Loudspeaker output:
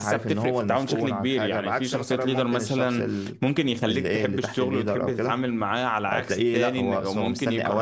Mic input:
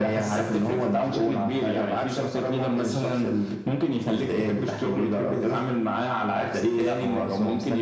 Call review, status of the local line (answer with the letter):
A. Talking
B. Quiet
B